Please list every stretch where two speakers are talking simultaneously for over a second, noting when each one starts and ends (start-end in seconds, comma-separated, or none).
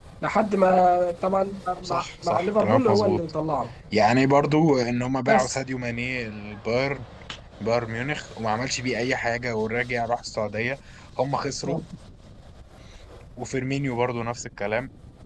1.8-3.2